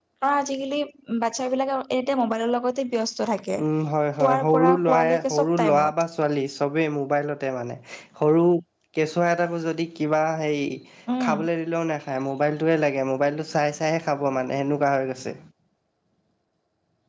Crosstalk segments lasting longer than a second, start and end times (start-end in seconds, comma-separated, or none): 4.2-5.9